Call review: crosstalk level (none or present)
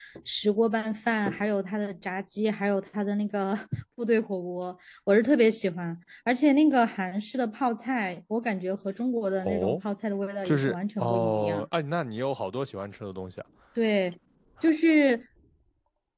present